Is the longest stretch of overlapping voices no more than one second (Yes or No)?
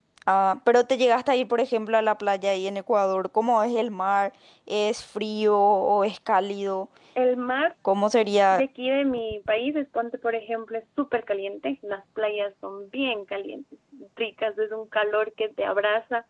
Yes